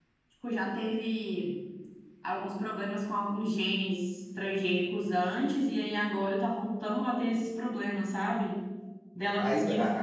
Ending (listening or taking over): taking over